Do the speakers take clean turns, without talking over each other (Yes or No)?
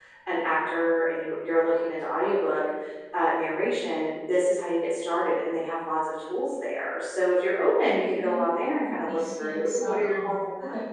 No